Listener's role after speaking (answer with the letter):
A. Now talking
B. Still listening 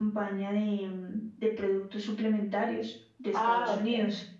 A